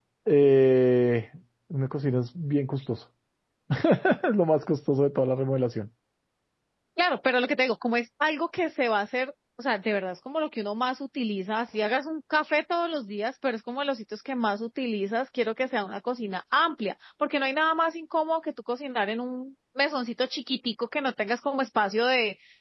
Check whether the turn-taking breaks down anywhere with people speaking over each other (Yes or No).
No